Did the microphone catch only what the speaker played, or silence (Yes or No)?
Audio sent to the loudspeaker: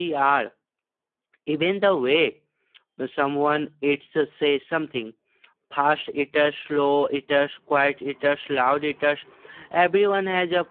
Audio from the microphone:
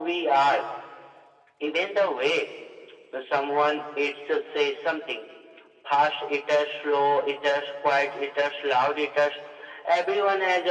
Yes